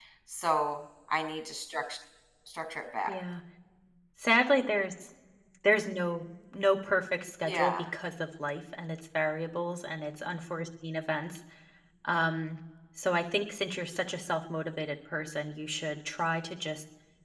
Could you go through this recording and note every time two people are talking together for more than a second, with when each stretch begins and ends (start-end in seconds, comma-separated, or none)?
none